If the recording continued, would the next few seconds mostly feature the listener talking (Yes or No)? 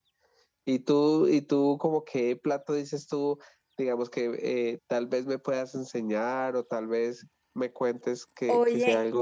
Yes